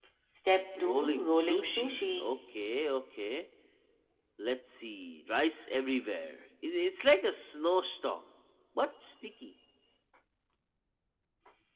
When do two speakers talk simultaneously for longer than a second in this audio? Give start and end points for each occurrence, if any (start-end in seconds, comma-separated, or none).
0.8-2.3